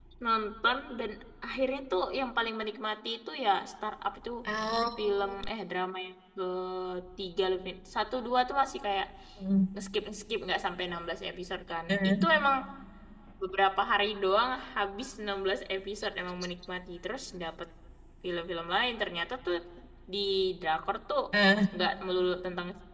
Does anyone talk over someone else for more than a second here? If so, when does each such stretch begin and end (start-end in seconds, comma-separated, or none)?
none